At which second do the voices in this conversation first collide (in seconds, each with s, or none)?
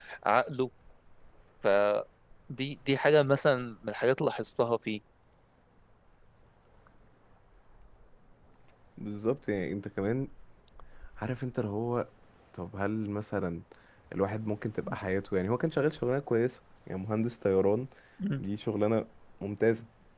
none